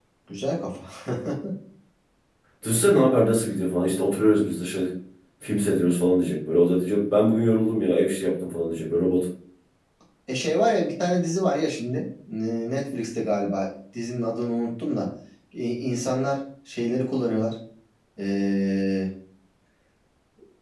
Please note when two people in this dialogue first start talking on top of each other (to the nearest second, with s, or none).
none